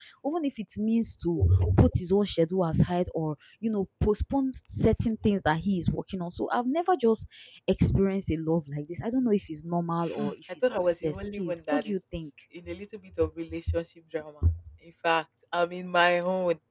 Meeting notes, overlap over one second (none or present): present